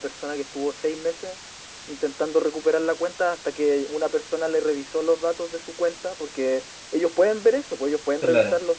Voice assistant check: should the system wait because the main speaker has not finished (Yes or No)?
Yes